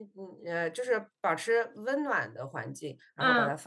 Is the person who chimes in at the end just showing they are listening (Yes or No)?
No